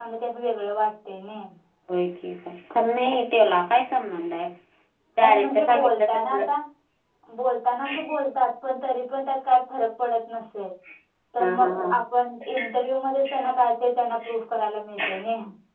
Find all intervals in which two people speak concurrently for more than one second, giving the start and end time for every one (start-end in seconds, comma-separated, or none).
5.2-6.5